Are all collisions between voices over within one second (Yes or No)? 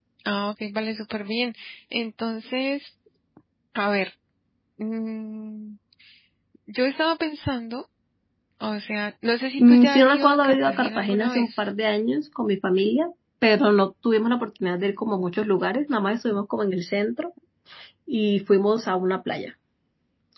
No